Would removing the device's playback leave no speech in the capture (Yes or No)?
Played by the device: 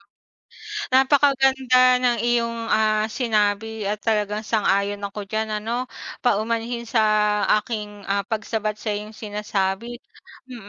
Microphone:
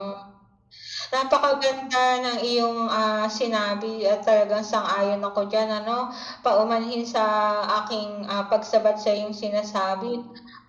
Yes